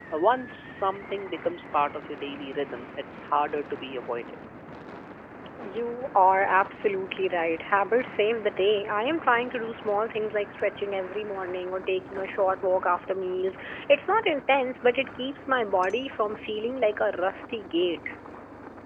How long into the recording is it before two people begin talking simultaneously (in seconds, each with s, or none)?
none